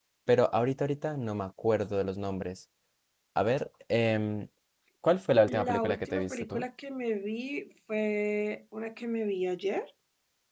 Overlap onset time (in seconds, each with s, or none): 5.4 s